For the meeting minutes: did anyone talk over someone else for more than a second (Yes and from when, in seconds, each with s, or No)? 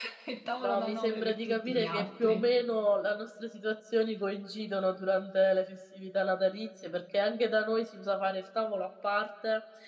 Yes, from 0.6 s